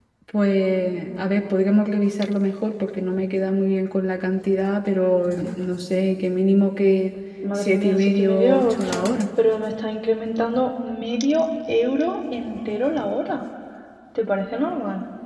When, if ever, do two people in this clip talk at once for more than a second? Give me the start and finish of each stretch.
7.5-9.1

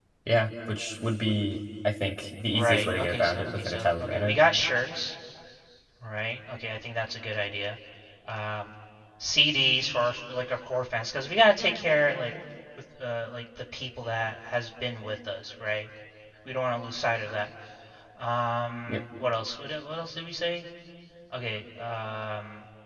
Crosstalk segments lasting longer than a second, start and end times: 2.5-4.4

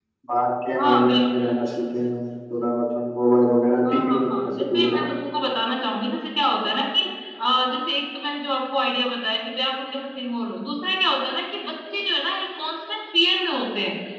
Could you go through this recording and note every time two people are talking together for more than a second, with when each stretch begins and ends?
3.9-5.1

